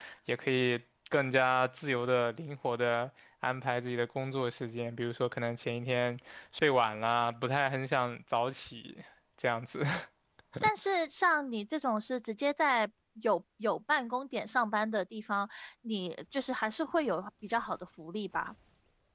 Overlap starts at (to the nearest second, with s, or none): none